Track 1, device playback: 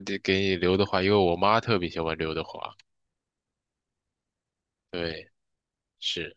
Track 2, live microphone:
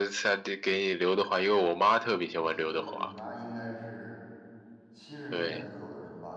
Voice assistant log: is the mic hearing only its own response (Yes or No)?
No